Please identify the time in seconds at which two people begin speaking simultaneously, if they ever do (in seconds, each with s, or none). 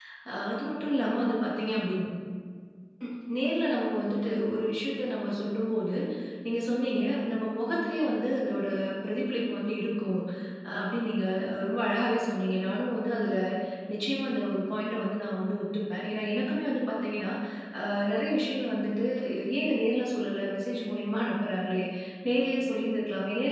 none